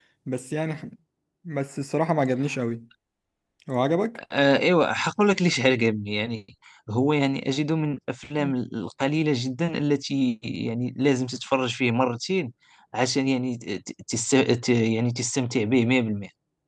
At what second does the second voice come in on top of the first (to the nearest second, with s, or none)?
none